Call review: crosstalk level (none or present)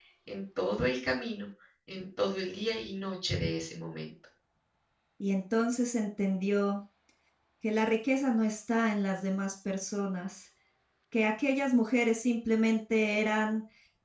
none